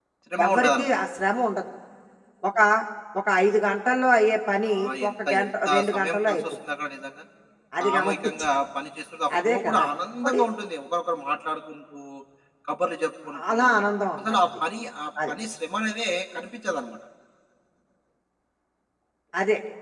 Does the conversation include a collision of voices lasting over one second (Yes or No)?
Yes